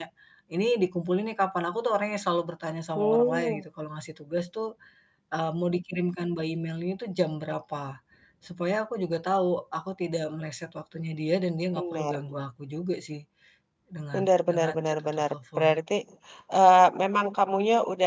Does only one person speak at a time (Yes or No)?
No